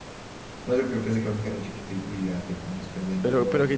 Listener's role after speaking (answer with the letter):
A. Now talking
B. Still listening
A